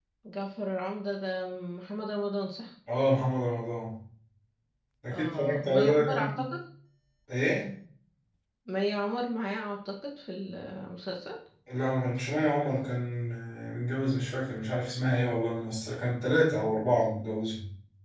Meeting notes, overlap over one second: present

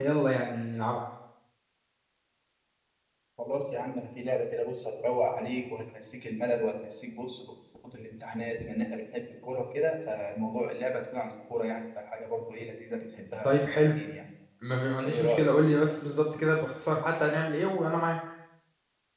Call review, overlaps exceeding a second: none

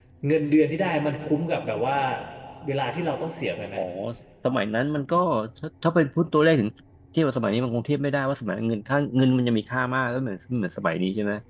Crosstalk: none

